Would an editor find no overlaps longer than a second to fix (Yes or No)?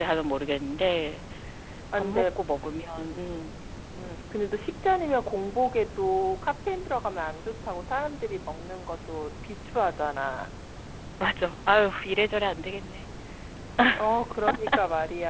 Yes